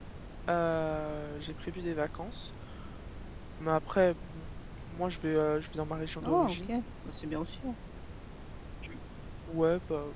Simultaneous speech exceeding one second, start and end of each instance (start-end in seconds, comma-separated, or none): none